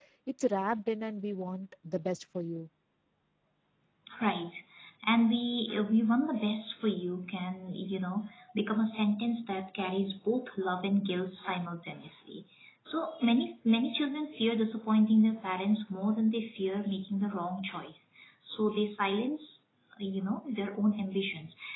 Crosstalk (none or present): none